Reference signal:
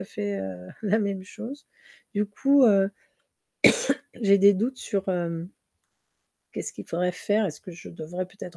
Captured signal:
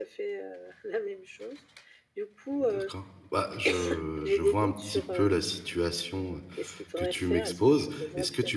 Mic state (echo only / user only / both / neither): both